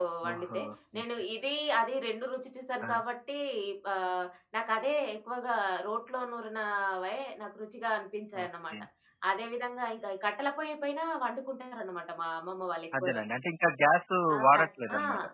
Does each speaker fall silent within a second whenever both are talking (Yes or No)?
Yes